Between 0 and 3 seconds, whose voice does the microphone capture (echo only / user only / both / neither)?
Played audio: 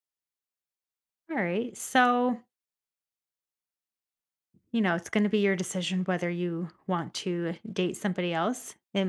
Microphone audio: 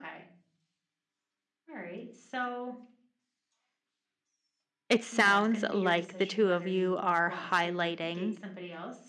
echo only